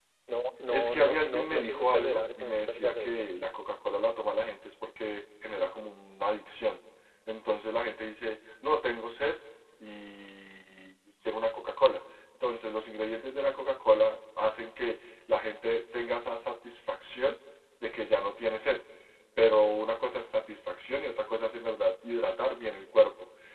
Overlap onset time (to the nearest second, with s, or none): 1 s